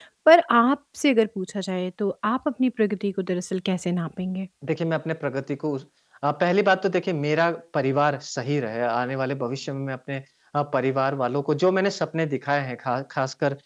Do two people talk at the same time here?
No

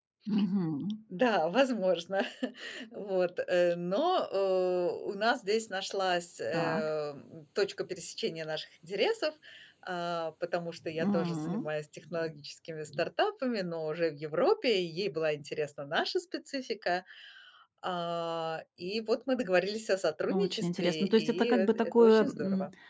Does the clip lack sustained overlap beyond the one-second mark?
No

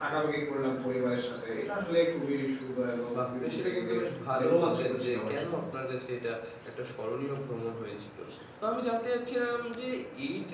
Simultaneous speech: Yes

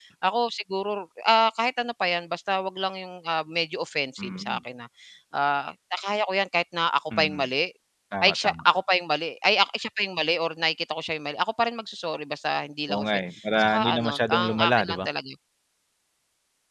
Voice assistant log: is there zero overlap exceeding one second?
No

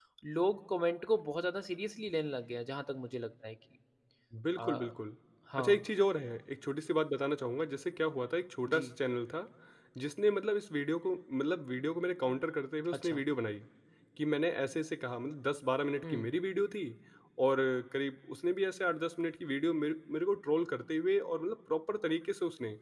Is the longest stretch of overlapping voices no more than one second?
Yes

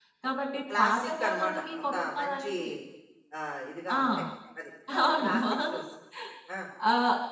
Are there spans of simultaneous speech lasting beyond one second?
Yes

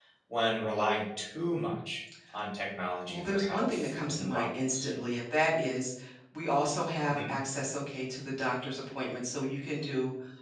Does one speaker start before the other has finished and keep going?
Yes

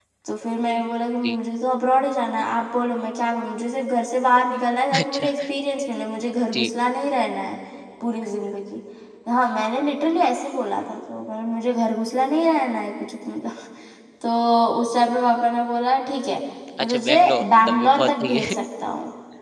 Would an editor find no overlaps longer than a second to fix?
No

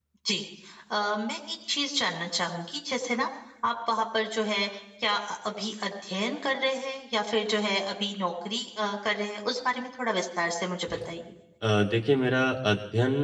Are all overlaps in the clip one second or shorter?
Yes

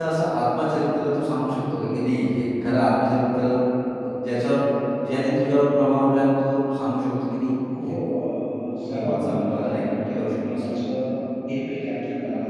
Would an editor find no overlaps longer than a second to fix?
No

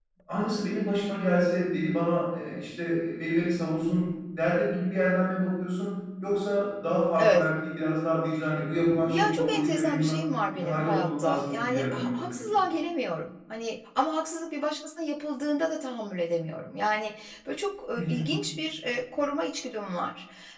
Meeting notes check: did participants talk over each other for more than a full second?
Yes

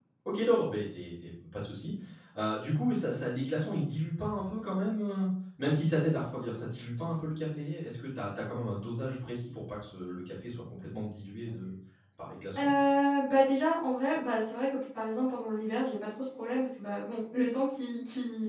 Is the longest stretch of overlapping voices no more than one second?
Yes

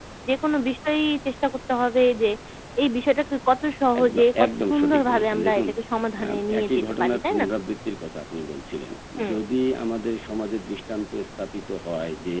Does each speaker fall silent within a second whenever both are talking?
No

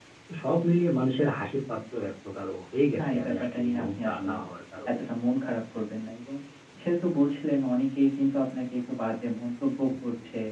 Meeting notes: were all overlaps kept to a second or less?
No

